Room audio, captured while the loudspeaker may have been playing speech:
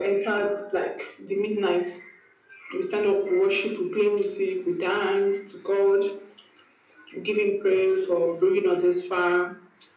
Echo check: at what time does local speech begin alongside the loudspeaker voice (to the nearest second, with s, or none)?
none